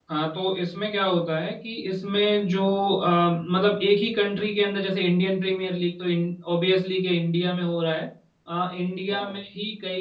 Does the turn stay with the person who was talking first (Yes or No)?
Yes